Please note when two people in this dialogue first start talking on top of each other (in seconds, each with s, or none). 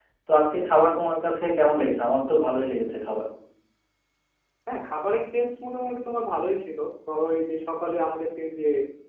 none